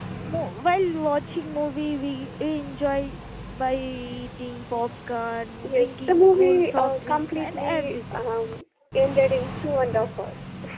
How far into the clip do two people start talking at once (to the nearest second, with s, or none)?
6 s